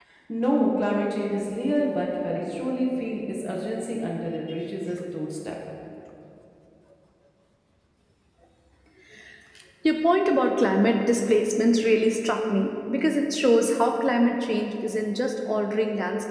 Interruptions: none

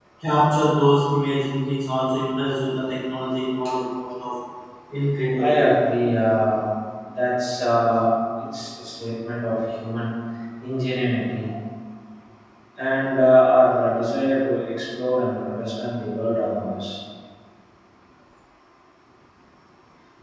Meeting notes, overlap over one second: none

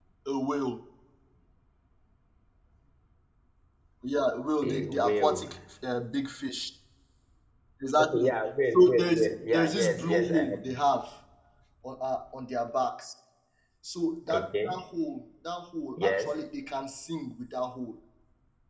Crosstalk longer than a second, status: present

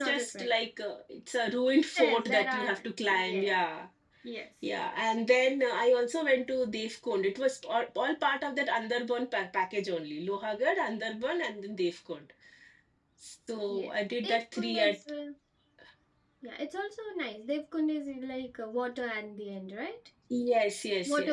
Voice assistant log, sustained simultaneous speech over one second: present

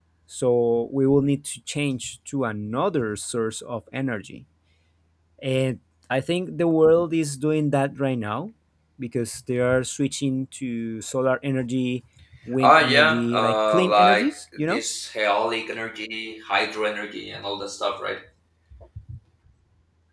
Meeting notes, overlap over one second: present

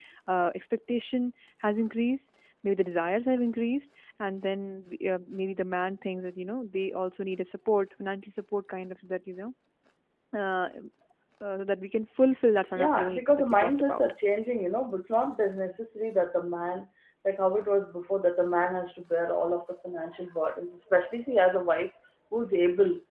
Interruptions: present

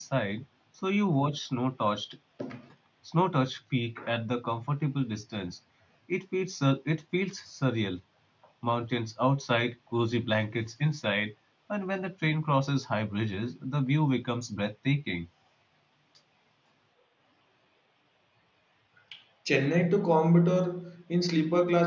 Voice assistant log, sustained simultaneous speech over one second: none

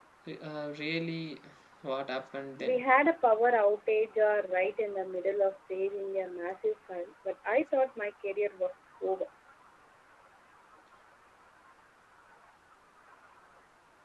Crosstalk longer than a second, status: none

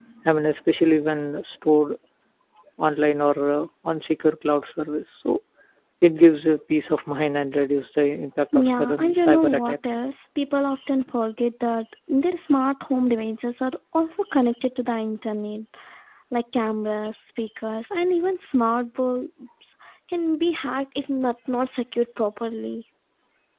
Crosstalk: present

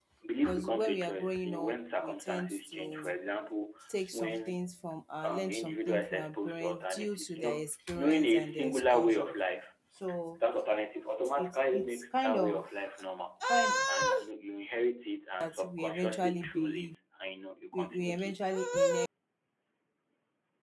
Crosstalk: present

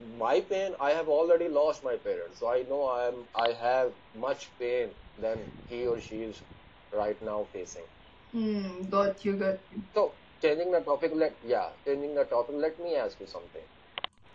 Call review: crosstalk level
none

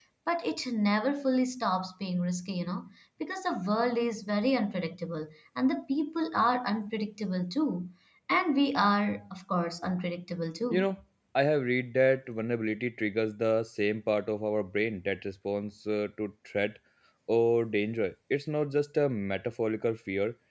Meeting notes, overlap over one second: none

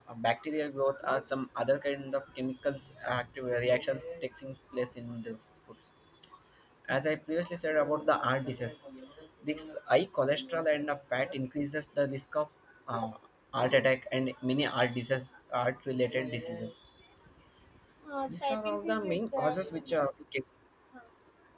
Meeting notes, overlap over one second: present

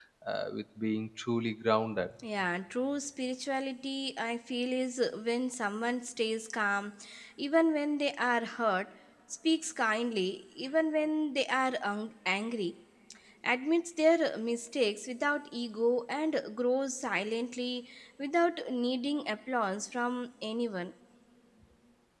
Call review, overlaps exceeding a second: none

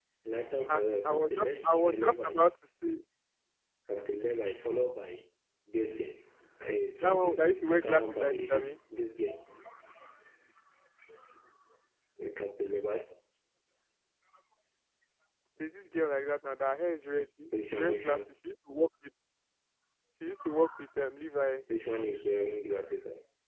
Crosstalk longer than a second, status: present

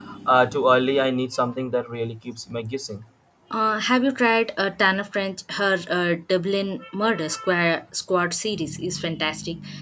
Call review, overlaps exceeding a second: none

